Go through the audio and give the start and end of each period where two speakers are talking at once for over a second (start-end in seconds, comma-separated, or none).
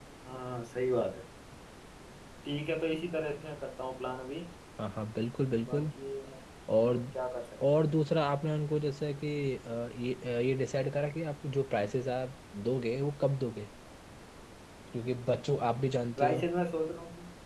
none